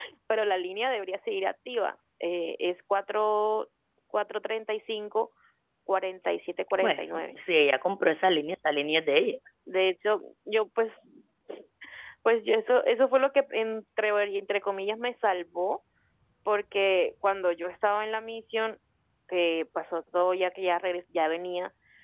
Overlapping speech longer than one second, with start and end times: none

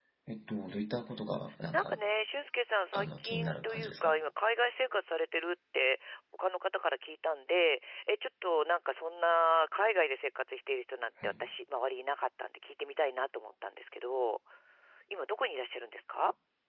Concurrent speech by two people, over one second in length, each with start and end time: 2.9-4.1

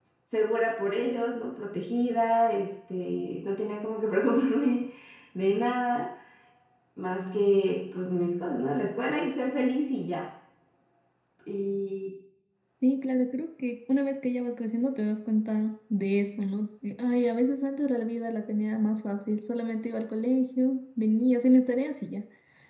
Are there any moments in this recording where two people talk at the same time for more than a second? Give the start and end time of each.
none

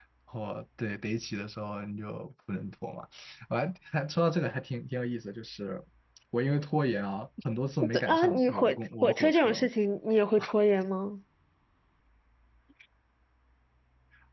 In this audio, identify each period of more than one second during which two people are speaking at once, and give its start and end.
7.9-9.7

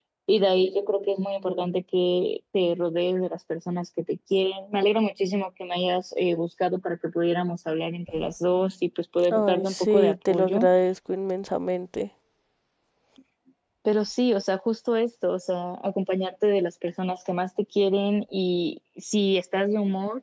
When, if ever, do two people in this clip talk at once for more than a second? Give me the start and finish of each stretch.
9.3-10.7

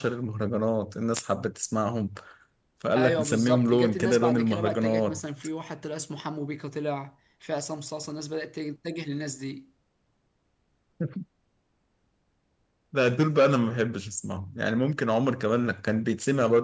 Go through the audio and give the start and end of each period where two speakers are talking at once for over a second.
3.0-5.2

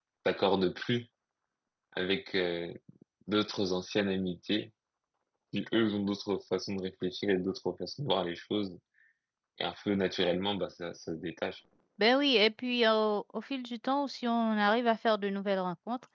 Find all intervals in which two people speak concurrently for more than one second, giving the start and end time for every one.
none

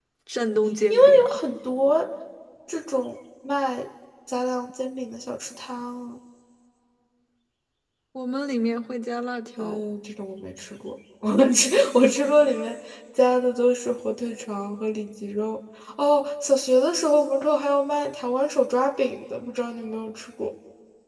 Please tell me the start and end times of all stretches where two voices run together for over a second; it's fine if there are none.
none

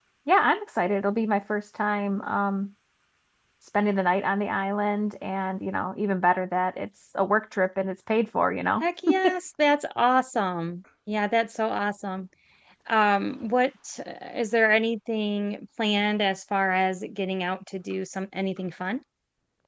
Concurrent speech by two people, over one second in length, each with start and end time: none

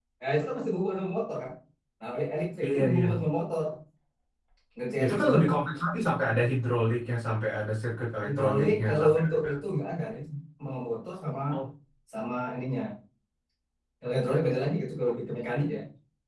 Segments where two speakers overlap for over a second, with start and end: 8.2-9.5

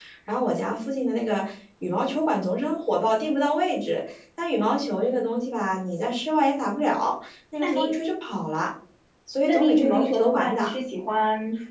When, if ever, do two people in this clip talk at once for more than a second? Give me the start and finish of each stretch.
9.4-10.7

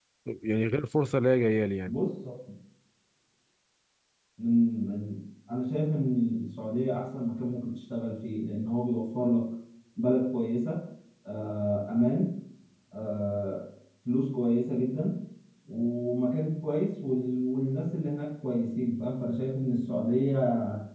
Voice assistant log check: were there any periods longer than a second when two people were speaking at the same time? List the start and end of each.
none

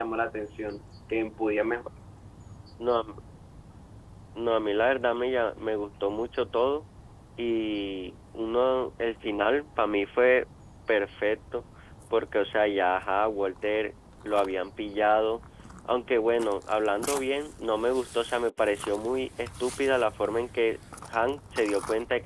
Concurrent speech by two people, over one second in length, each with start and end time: none

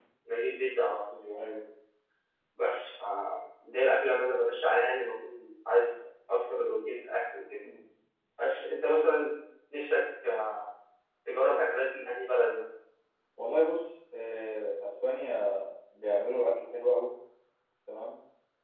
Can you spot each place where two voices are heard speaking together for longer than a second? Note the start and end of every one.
none

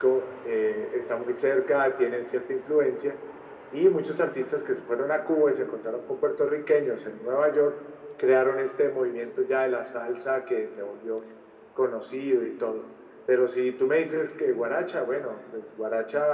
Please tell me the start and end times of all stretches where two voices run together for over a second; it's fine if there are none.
none

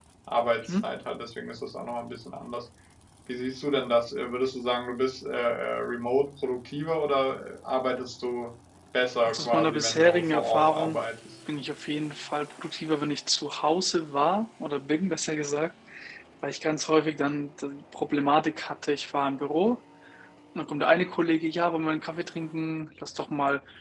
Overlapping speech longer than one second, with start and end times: 9.2-11.0

